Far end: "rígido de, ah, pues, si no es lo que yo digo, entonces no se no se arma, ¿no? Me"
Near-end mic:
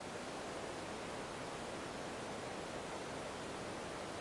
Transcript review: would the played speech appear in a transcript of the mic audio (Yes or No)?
No